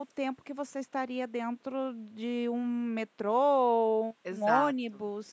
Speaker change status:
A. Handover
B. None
B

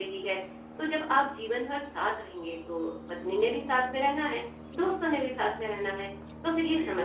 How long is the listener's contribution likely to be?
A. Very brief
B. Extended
A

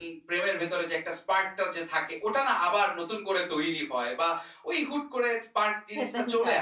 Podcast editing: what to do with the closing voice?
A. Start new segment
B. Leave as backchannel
A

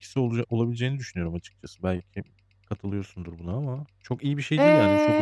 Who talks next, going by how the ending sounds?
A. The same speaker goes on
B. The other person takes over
B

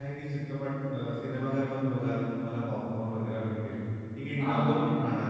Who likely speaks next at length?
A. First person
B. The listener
A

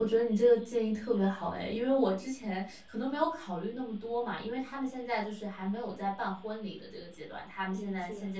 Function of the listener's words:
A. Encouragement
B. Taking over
A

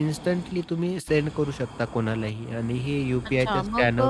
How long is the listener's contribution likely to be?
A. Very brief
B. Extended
B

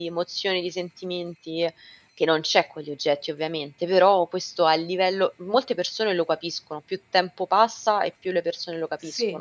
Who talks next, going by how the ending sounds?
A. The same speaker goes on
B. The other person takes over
B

